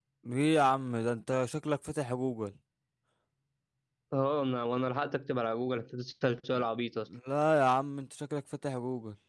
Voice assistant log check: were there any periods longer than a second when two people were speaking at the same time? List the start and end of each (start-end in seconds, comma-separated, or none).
none